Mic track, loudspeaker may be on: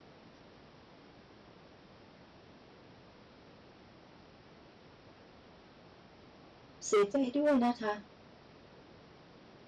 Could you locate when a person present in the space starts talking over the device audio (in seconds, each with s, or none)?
6.8 s